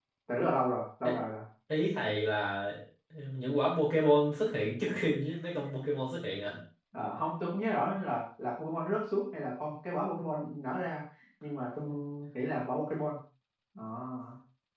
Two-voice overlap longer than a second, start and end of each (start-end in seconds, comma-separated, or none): none